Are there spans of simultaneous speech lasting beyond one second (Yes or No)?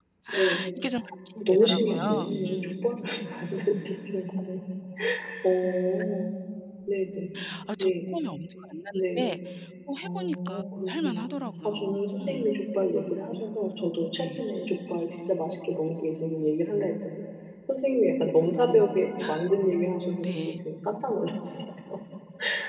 Yes